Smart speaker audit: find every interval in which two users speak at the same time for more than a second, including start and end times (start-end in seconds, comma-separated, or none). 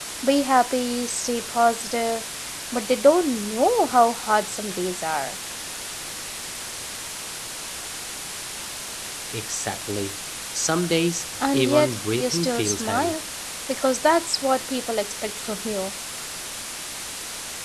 11.5-13.2